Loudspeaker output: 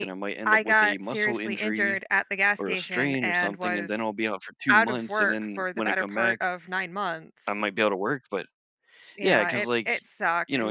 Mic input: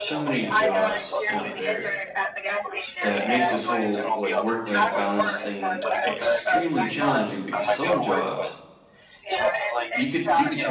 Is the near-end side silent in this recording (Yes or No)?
No